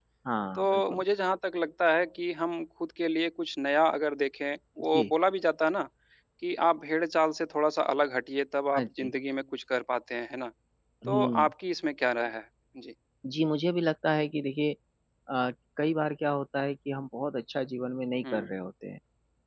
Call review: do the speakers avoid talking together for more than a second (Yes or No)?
Yes